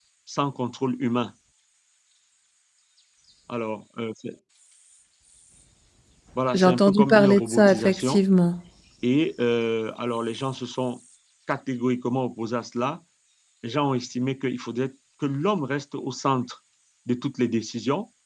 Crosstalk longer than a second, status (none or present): present